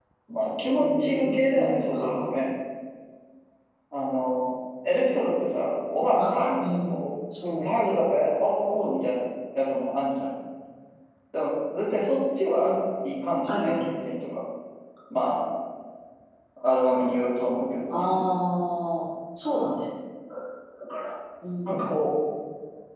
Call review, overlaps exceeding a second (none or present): present